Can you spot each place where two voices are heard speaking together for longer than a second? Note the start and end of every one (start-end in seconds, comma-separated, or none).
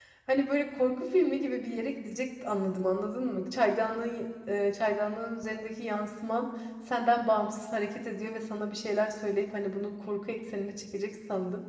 none